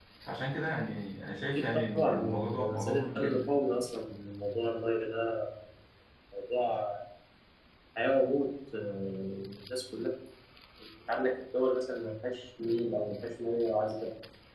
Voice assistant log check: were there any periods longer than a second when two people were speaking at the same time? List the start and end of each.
1.6-3.4

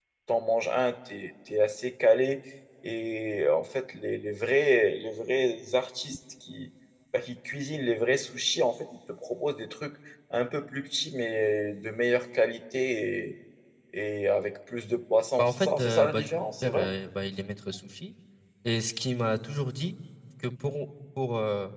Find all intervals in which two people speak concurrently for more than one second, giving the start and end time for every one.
15.4-16.9

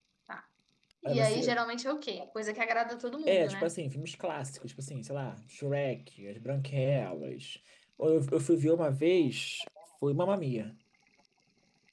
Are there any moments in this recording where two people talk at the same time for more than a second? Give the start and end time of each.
none

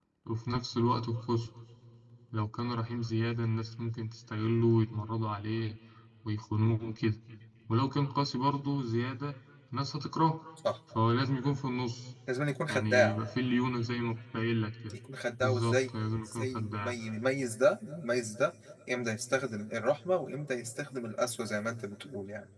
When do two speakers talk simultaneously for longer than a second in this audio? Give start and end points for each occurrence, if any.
15.4-17.0

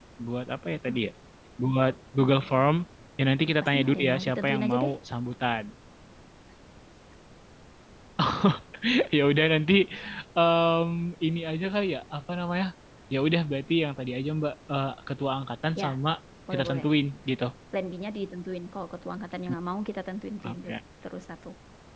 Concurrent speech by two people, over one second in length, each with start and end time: 3.6-4.9

